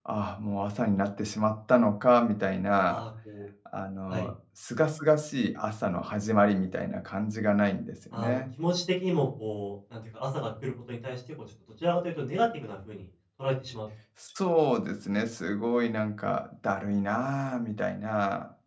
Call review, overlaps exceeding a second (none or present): none